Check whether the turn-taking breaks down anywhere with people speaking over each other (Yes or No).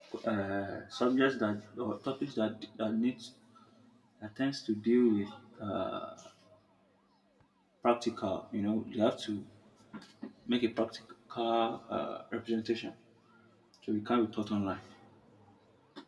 No